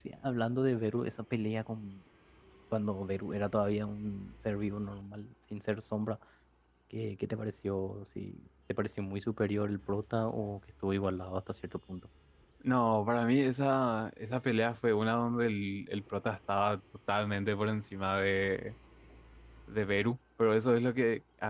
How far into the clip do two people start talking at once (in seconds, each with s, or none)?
none